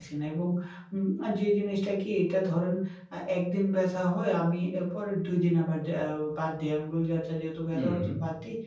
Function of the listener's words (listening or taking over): listening